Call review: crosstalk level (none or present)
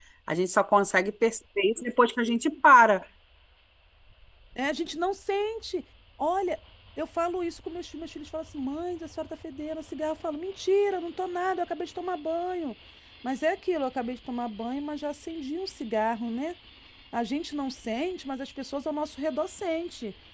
none